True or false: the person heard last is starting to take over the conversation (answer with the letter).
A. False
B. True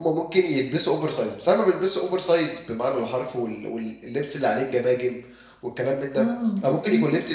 A